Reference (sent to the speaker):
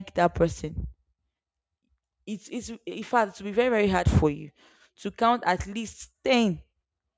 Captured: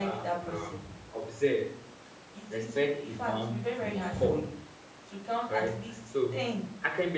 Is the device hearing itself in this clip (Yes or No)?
Yes